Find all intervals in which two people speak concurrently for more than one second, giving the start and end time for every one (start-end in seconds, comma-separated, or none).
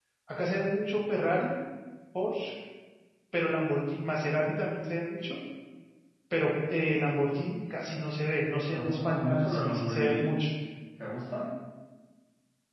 8.7-10.3